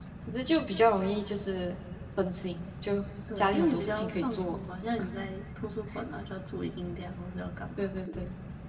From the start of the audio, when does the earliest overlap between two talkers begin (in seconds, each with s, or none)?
3.4 s